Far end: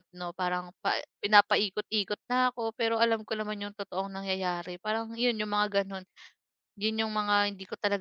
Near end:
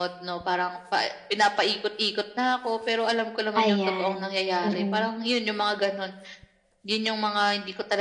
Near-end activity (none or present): present